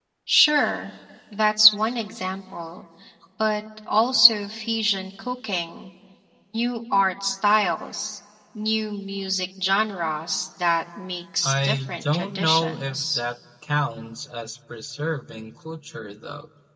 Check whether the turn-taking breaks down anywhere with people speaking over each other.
Yes, from 11.4 s

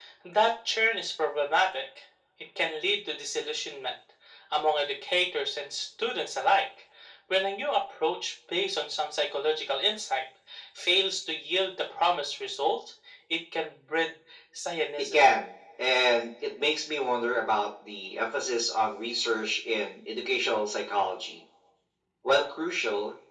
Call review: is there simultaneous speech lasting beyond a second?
No

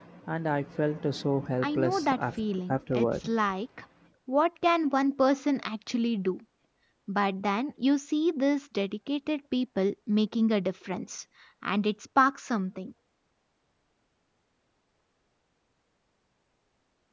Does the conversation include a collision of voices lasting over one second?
Yes, from 1.6 s

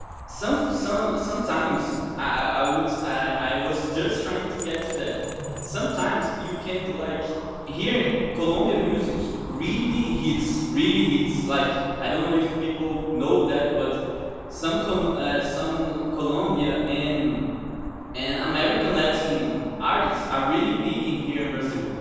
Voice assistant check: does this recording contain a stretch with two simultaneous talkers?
No

